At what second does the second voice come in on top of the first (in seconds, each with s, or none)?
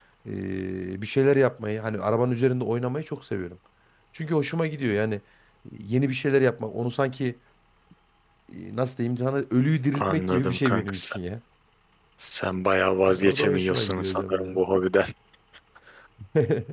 9.9 s